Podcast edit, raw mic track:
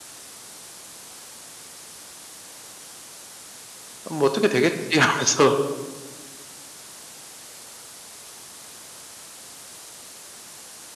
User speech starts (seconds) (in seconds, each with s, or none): 4.0 s